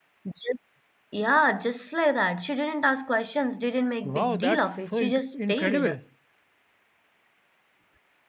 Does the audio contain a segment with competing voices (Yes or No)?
Yes